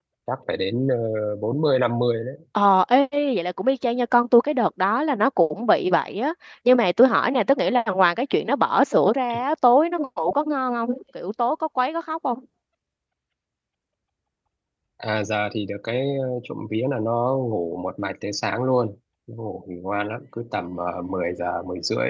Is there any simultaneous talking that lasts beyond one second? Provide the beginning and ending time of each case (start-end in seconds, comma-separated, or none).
none